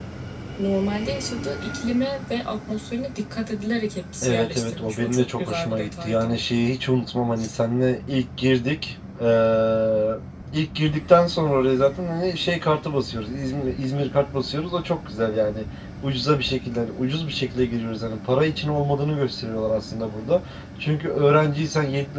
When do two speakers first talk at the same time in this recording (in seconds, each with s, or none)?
4.2 s